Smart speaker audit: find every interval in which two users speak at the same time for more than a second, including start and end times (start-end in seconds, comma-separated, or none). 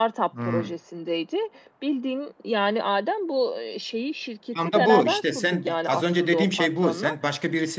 4.7-7.2